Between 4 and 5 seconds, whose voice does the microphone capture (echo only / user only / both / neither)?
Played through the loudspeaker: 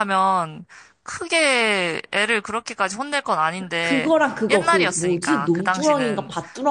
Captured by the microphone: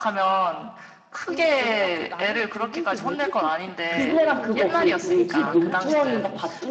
both